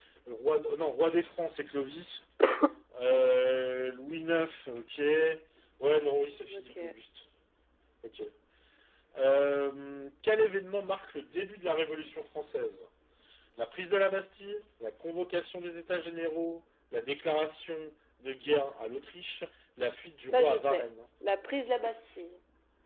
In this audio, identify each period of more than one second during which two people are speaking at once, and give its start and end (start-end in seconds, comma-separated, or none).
none